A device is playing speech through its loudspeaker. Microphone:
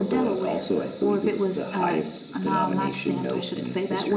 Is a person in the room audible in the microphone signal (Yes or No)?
No